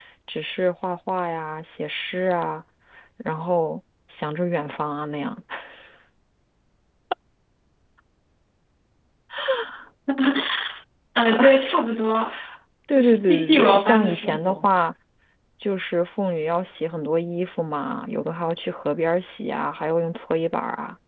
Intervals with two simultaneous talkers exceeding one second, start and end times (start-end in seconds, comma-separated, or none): 12.9-14.6